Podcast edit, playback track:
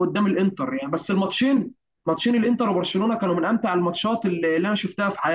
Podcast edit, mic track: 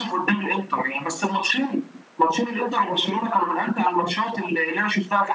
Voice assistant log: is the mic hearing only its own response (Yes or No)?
Yes